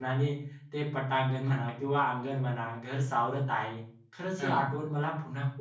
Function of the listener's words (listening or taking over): listening